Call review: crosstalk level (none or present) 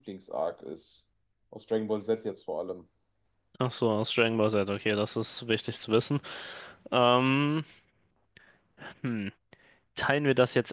none